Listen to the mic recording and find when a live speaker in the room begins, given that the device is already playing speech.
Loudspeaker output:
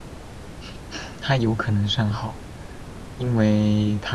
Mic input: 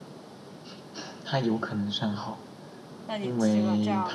3.1 s

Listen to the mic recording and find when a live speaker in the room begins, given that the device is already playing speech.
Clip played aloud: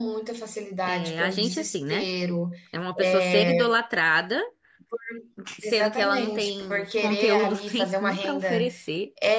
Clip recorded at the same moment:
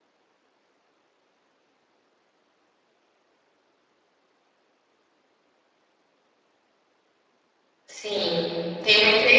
7.9 s

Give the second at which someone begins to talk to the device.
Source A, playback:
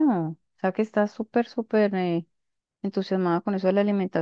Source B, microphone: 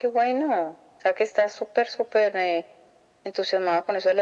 none

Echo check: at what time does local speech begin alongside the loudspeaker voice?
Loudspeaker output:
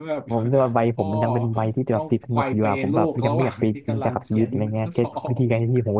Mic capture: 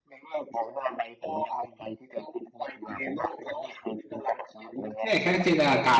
5.0 s

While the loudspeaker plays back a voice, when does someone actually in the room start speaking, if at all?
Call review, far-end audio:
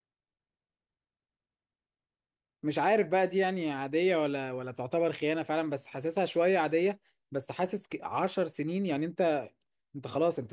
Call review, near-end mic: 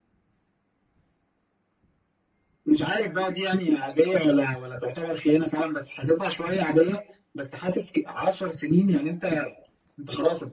none

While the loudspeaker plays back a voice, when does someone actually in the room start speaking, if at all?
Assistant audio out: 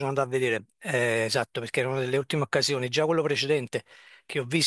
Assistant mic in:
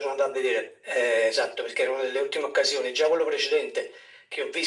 none

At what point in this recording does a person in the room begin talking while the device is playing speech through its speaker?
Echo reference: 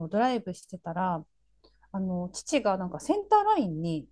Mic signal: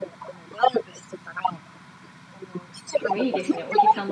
3.0 s

